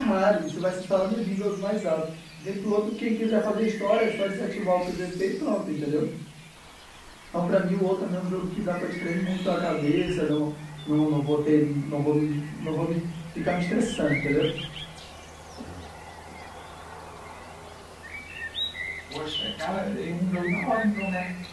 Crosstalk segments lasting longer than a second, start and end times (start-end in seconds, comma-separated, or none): none